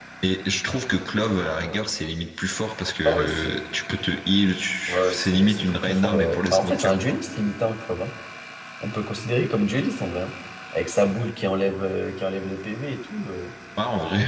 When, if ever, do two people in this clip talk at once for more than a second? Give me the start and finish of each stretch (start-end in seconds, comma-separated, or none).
4.9-7.2